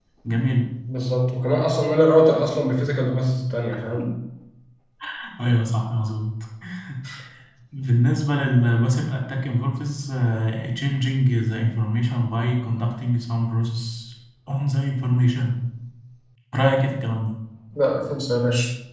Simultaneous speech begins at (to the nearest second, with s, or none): none